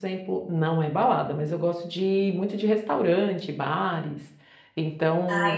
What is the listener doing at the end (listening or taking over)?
taking over